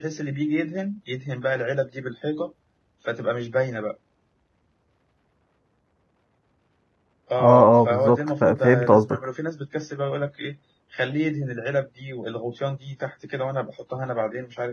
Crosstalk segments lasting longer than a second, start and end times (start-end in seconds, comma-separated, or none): 7.4-9.2